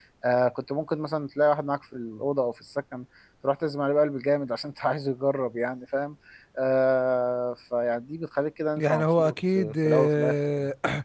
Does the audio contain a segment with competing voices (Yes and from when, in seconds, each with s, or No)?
Yes, from 8.8 s